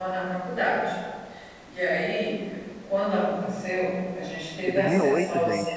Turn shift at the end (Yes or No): Yes